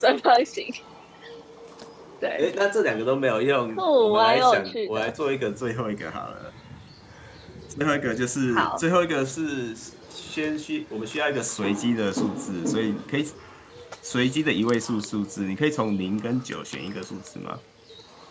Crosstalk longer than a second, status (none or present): present